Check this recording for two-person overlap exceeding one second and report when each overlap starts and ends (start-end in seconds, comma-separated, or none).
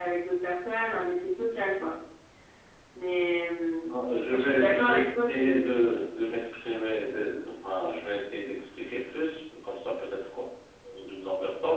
4.2-5.8